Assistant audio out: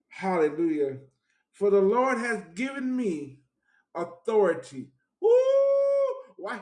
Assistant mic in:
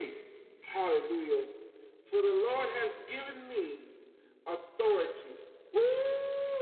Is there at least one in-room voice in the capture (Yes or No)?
No